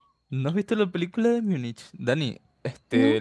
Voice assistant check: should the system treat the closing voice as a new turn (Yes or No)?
No